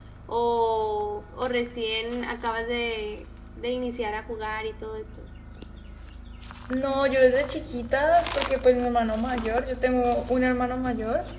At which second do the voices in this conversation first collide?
none

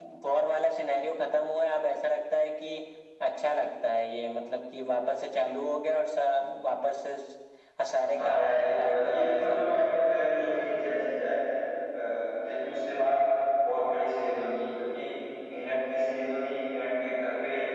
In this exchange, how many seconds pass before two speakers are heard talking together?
8 s

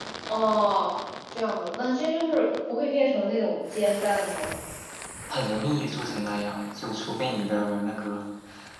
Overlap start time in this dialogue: none

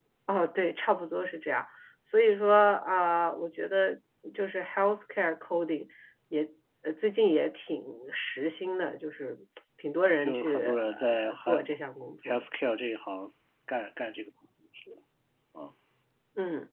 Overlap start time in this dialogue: 10 s

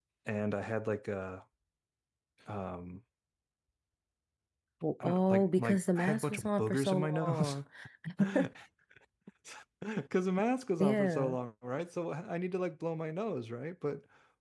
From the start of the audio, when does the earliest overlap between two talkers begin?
5 s

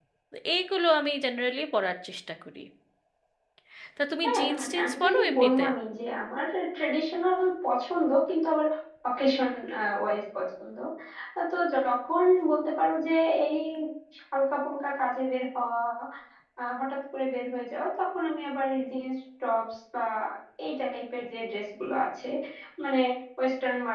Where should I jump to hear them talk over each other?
4 s

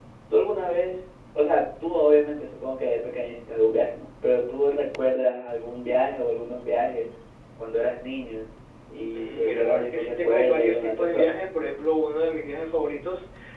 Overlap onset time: 9 s

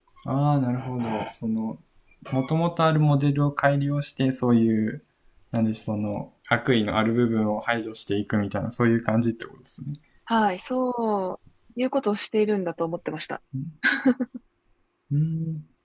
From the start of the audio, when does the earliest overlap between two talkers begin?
none

